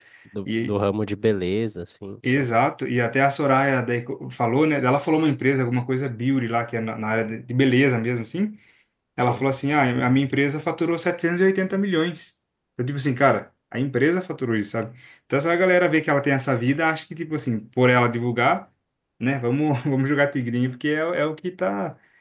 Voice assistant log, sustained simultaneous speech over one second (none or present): none